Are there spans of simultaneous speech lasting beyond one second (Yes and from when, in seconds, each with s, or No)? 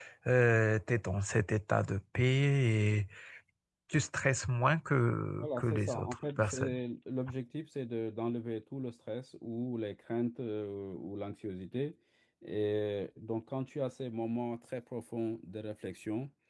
Yes, from 5.4 s